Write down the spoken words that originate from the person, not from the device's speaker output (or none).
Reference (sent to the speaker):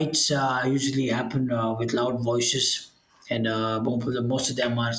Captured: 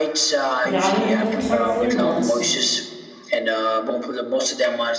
rather than the thoughtful ones